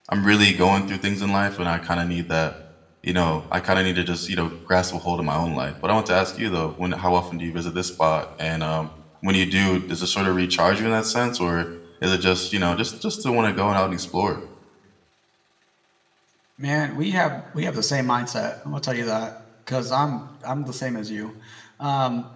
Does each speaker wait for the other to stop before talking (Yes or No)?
Yes